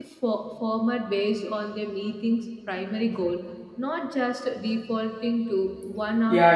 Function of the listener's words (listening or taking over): taking over